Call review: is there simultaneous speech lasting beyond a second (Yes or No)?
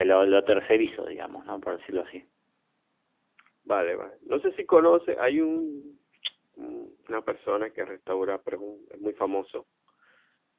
No